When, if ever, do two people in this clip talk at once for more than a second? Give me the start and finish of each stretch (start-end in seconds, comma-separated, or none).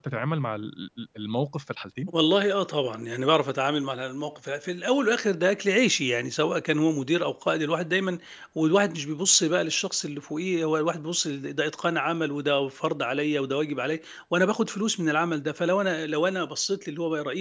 none